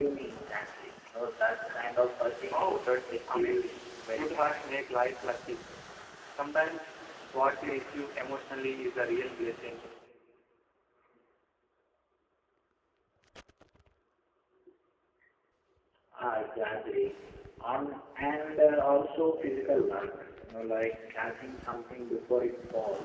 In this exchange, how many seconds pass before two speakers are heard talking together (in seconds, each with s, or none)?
2.5 s